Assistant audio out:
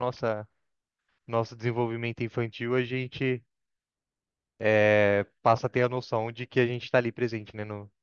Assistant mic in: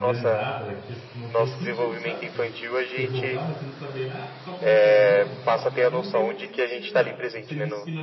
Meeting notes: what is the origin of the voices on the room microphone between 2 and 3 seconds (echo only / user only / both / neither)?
both